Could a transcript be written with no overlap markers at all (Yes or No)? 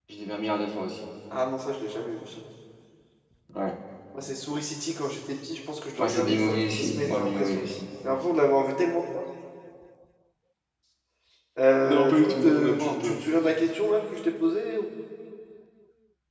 No